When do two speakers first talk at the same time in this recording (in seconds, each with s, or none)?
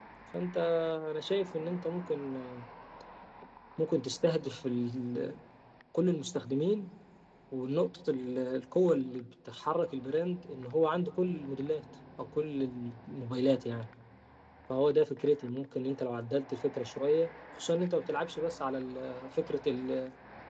none